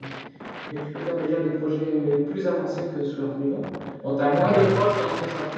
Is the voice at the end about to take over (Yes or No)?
No